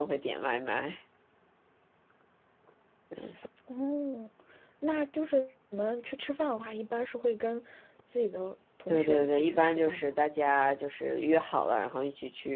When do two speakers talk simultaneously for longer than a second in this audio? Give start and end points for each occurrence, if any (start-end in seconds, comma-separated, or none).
8.9-10.1